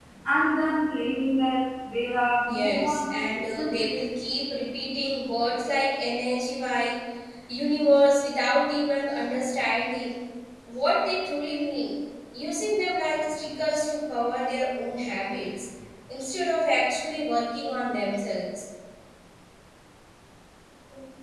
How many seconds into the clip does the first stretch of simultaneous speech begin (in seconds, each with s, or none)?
2.5 s